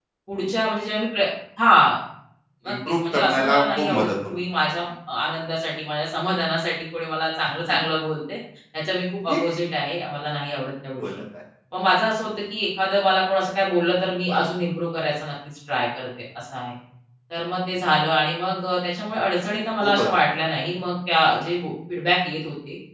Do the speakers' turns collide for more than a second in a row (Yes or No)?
Yes